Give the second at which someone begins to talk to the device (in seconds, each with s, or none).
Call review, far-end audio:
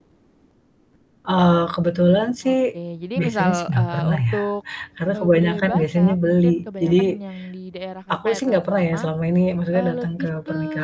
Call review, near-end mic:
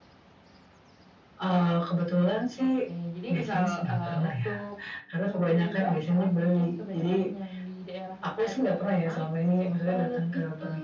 none